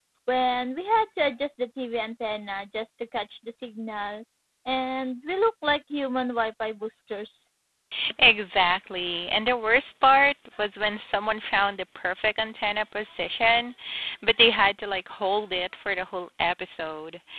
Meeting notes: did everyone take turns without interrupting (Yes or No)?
Yes